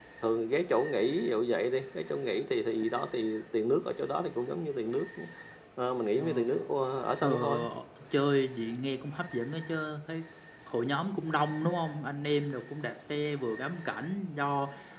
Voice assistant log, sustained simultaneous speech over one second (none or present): none